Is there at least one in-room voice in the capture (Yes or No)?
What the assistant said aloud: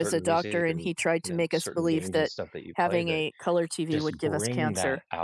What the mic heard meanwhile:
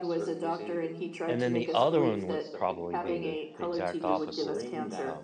Yes